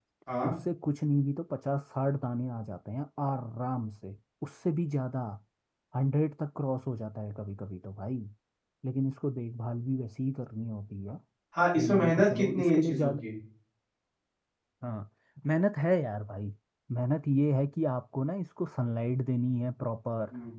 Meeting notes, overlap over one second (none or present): present